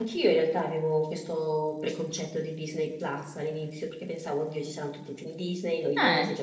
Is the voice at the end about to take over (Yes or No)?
No